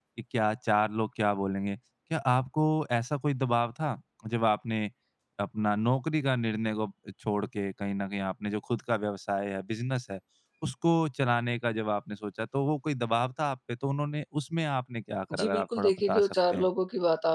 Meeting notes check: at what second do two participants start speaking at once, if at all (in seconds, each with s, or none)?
15.3 s